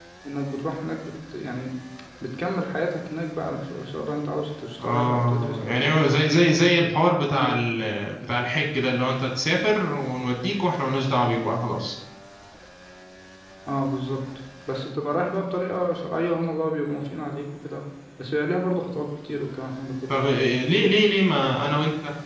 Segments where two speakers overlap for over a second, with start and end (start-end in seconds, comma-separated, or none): 4.8-6.0